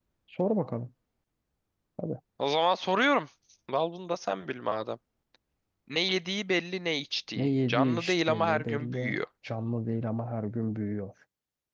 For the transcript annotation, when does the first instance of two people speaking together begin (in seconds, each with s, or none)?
7.3 s